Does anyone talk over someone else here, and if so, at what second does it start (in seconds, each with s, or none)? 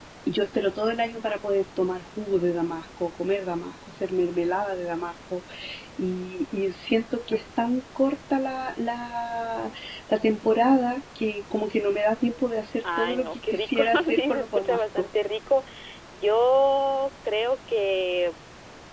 12.8 s